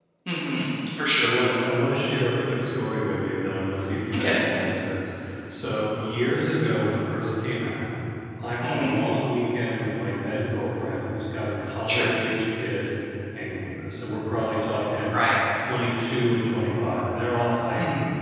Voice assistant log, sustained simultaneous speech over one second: none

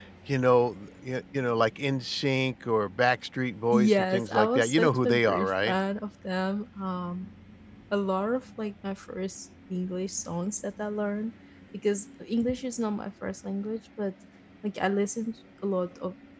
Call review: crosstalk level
present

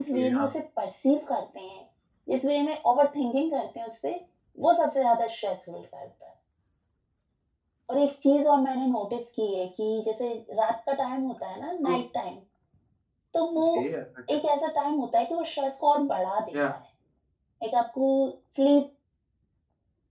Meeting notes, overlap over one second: none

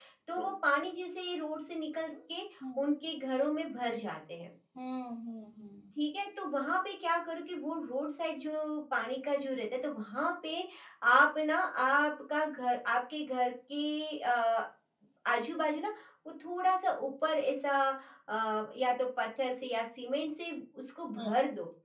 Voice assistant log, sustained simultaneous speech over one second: none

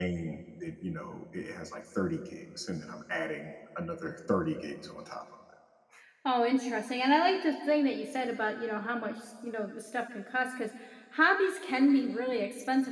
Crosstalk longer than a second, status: none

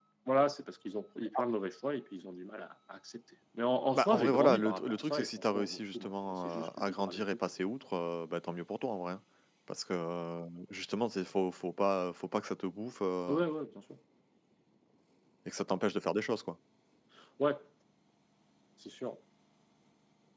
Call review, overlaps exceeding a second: present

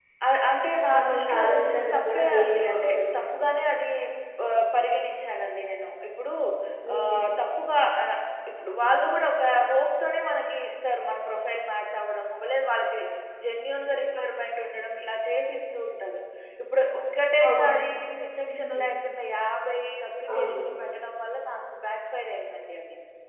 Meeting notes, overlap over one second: present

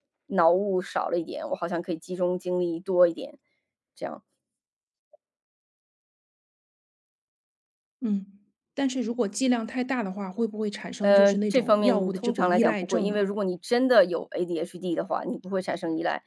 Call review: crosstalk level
present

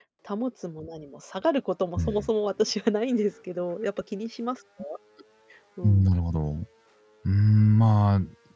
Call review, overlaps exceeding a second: none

